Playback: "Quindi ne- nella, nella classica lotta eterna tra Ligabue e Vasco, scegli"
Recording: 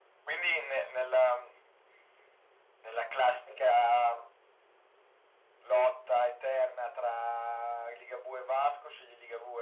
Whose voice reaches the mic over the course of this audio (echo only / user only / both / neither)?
echo only